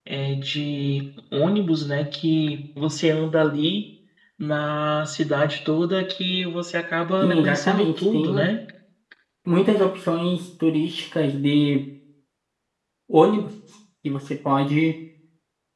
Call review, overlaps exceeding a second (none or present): present